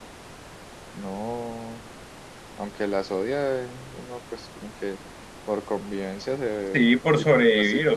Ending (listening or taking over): taking over